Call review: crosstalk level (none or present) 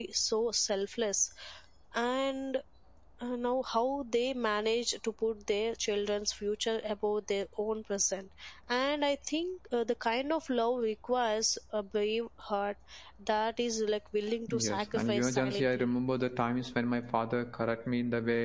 present